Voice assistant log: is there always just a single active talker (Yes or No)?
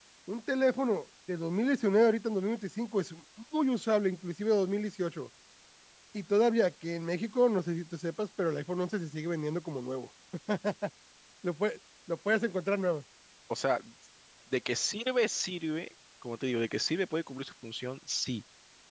Yes